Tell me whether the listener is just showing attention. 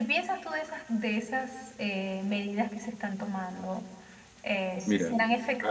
No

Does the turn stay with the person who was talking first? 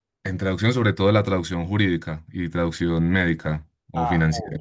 No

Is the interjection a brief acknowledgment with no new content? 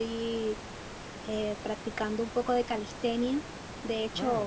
Yes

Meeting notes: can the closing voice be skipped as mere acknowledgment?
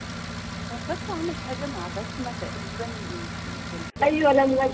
No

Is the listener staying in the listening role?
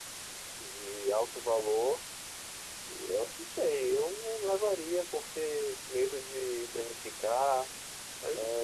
No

